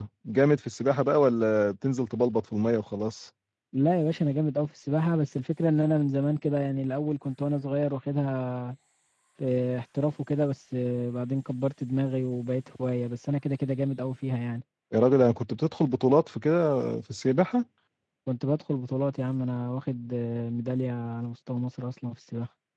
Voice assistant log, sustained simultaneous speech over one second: none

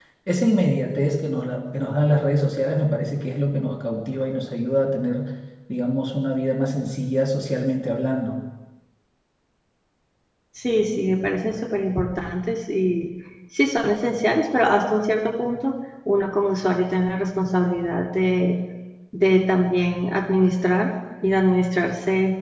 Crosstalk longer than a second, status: none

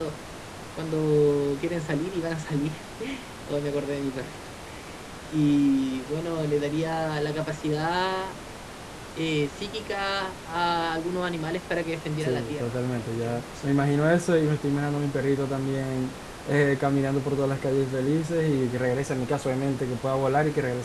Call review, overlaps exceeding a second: present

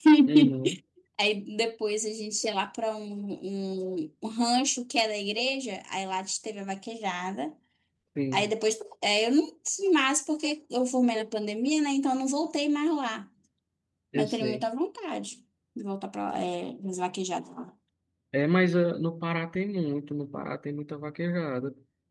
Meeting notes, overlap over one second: none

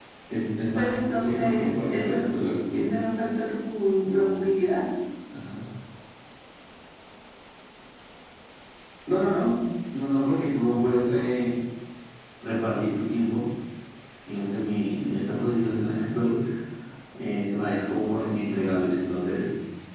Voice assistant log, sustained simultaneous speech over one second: present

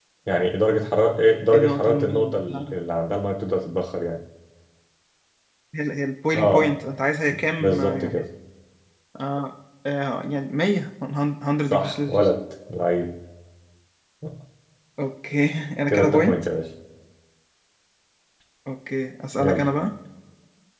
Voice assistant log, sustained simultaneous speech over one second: present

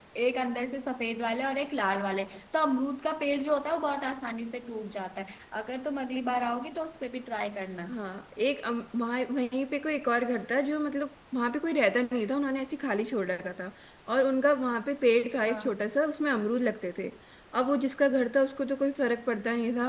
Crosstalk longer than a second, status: none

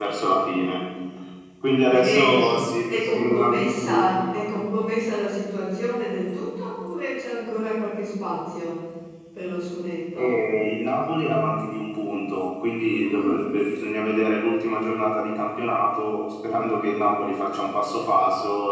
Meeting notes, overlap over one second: present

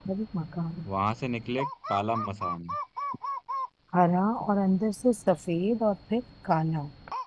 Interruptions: none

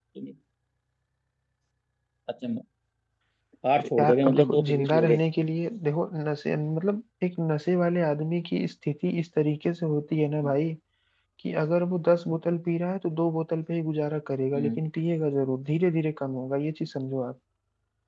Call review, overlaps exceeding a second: present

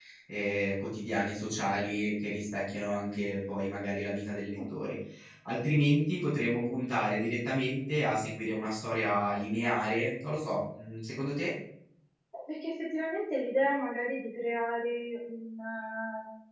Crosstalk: none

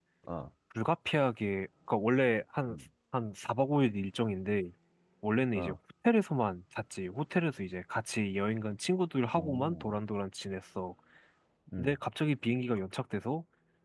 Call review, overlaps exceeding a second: none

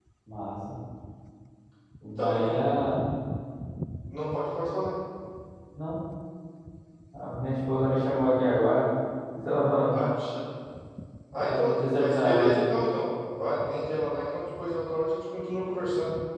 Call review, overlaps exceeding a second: present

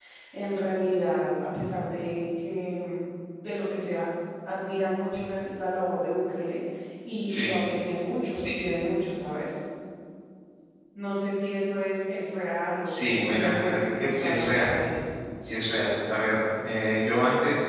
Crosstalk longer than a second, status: present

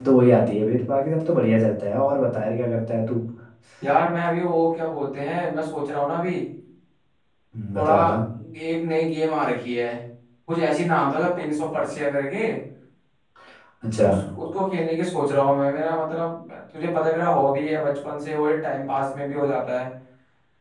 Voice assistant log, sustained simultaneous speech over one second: none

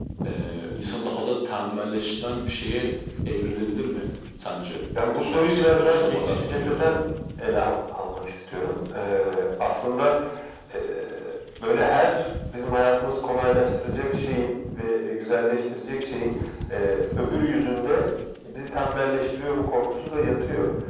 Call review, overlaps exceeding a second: present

